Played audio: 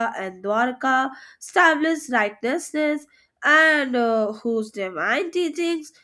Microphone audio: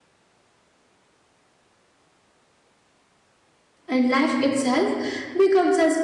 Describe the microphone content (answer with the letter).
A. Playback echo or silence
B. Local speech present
B